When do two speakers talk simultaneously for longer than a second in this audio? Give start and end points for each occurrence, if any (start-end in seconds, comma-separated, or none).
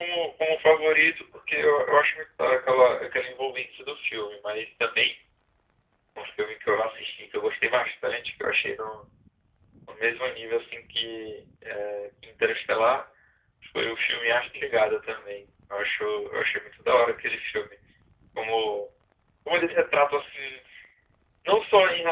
none